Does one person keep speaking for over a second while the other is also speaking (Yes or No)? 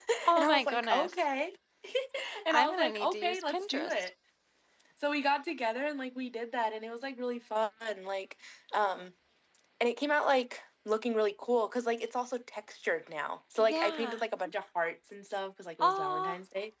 Yes